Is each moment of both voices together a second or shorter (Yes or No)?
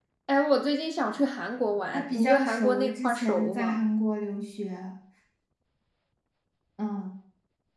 No